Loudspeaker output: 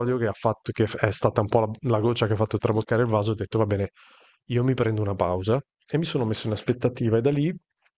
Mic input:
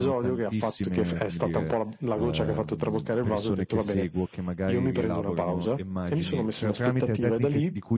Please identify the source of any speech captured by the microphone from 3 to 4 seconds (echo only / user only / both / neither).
both